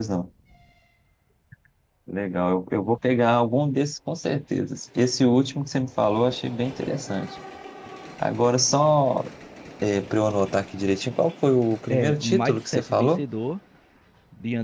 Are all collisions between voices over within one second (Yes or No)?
No